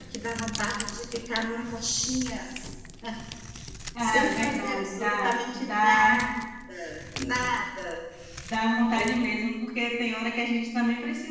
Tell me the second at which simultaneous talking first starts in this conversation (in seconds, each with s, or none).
4.0 s